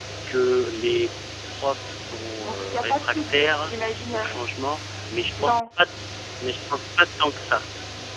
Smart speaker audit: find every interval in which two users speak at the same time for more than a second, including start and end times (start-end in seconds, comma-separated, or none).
2.5-3.7